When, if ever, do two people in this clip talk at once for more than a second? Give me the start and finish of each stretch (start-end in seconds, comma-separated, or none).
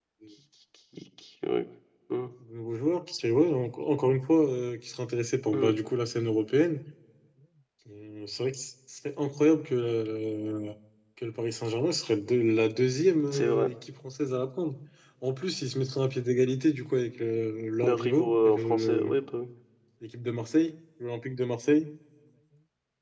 17.8-19.1